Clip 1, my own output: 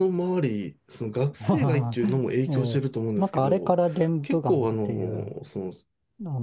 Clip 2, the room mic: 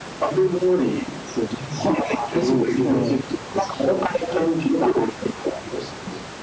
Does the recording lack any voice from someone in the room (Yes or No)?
No